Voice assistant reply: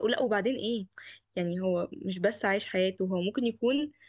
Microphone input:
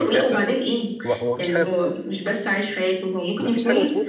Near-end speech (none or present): present